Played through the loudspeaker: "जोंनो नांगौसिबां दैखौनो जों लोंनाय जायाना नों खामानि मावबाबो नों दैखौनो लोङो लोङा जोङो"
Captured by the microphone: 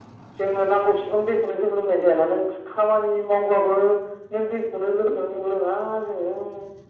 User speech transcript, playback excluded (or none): none